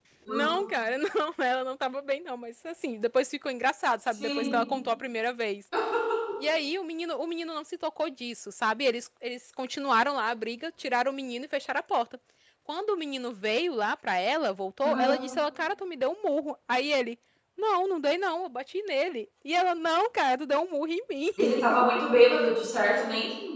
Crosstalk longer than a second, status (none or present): none